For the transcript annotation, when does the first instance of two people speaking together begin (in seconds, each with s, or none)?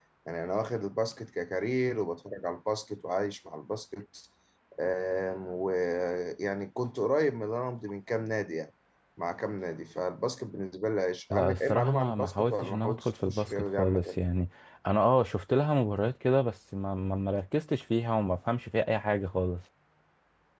11.3 s